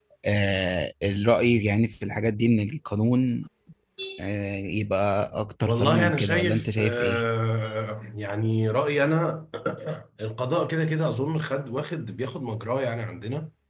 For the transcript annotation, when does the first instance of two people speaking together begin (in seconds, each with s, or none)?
5.7 s